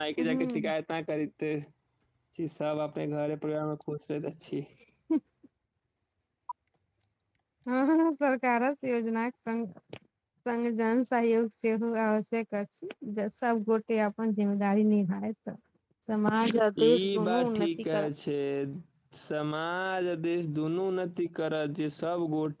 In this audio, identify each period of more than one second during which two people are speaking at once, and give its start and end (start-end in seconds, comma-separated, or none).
16.8-18.1